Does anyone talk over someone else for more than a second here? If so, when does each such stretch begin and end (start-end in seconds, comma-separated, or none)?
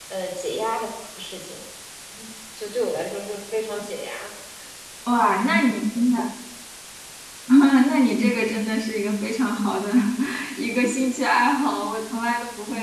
none